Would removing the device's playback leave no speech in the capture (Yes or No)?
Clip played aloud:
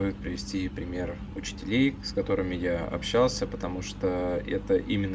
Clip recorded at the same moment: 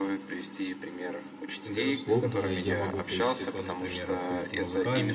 No